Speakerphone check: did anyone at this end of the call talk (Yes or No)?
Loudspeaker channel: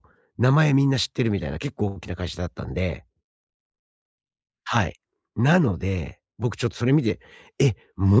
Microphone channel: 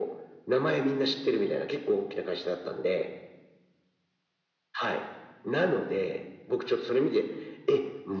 No